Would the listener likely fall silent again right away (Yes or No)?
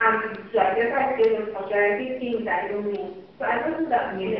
Yes